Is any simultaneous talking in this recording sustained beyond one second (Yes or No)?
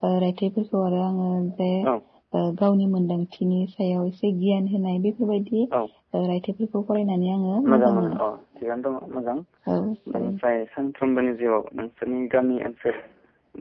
No